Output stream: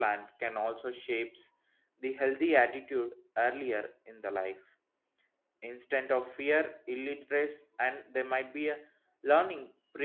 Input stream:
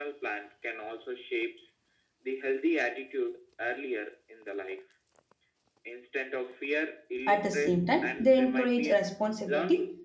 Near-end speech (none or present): present